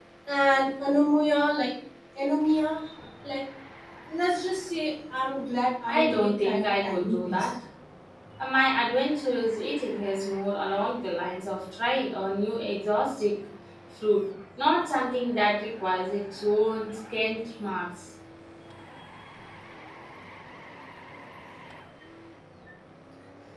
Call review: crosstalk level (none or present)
present